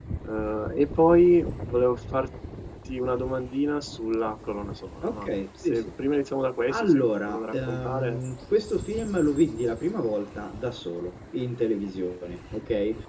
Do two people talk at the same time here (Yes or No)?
Yes